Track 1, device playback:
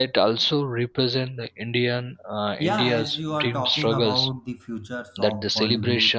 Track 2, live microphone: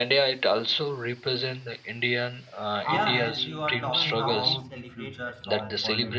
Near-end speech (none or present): present